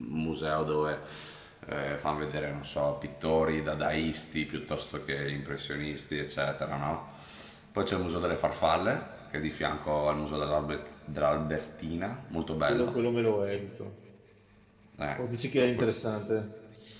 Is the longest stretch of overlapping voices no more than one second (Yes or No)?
Yes